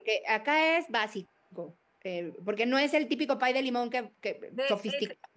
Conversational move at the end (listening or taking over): taking over